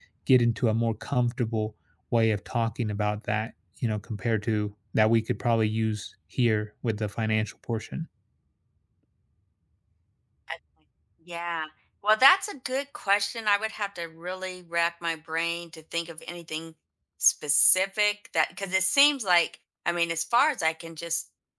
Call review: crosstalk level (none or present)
none